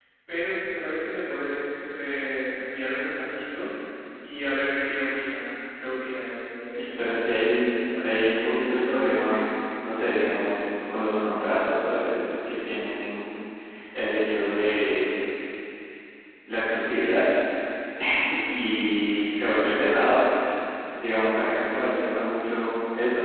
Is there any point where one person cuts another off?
Yes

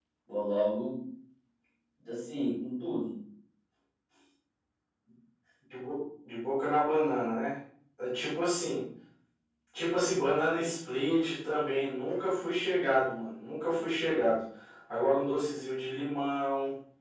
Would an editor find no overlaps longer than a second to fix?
Yes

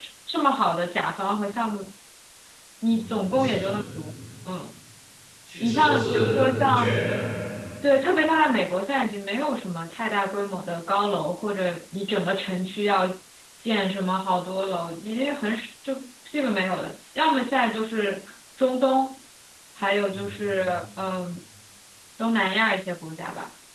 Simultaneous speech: Yes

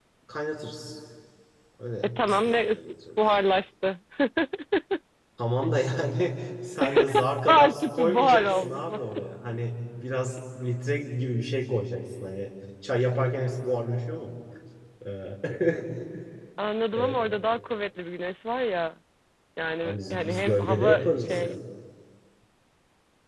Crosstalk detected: Yes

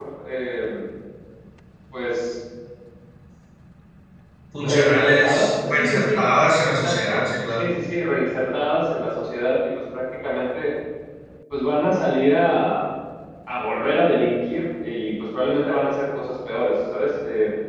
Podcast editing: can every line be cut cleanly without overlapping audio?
No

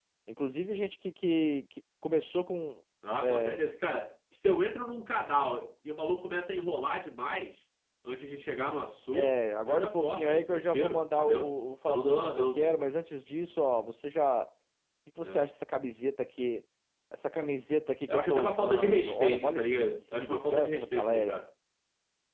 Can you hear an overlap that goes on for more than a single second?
Yes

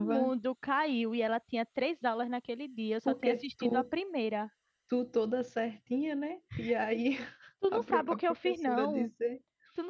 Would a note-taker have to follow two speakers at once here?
Yes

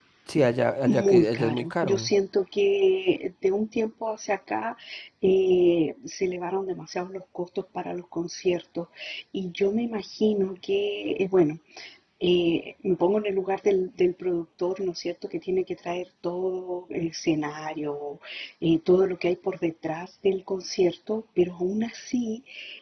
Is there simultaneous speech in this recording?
Yes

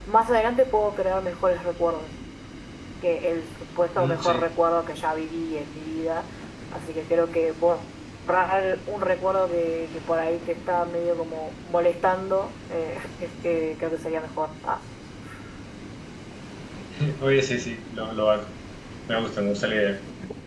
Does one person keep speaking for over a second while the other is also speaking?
No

